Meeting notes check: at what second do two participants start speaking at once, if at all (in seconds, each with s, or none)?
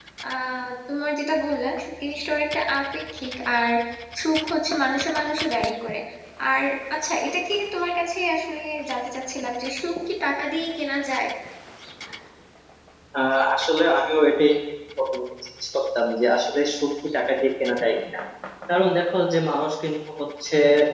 none